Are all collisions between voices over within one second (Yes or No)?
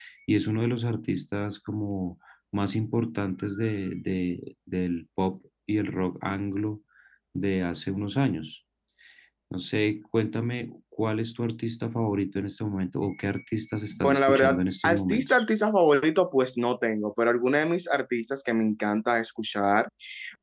No